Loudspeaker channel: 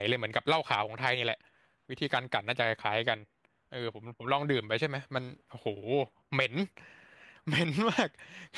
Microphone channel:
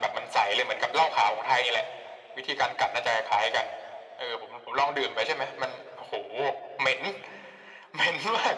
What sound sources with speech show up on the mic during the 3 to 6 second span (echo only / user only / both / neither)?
echo only